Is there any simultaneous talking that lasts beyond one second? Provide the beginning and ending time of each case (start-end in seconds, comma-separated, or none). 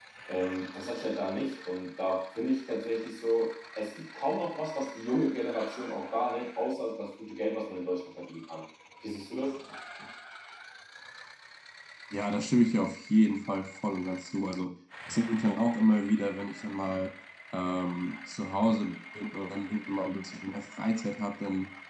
none